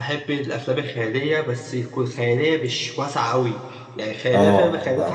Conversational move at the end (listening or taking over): listening